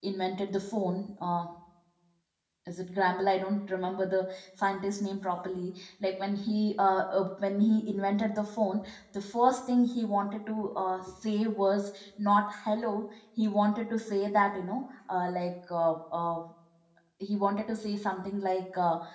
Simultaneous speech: No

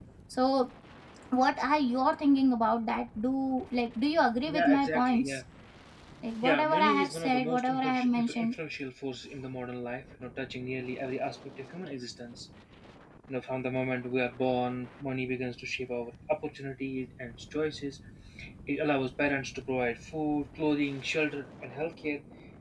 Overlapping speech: Yes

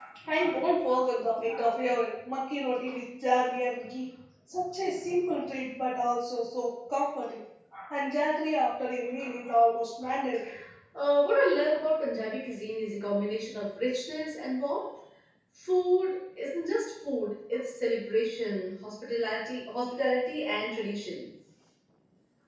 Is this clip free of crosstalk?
Yes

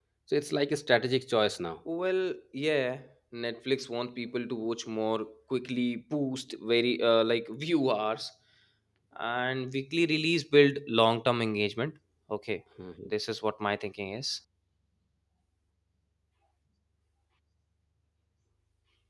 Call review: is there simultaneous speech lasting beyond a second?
No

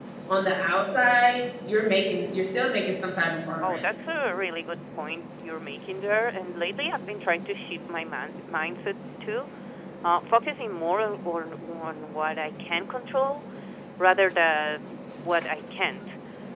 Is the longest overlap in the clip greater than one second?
No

